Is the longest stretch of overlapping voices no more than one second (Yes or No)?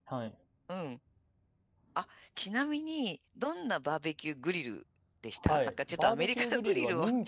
No